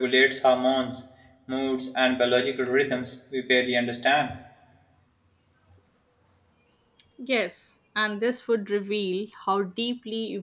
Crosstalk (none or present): none